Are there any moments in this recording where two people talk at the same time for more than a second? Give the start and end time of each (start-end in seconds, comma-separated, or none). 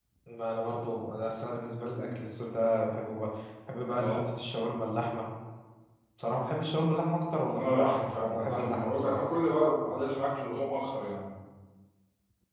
7.6-9.2